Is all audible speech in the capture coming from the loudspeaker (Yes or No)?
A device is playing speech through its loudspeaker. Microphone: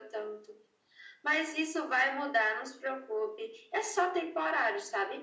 Yes